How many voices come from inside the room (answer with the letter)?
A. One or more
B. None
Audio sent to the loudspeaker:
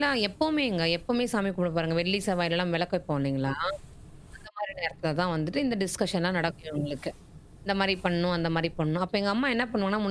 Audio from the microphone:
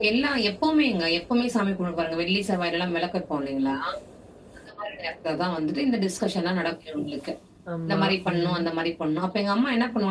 A